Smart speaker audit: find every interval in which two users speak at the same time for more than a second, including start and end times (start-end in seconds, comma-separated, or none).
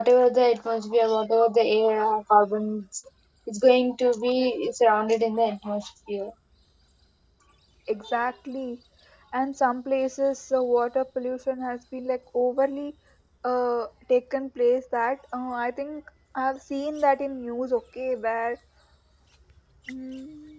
none